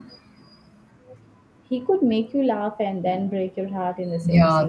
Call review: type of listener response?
taking over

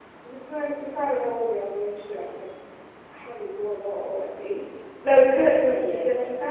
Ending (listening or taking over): listening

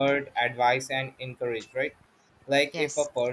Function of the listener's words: listening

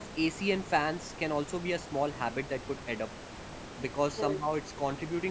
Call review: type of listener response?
listening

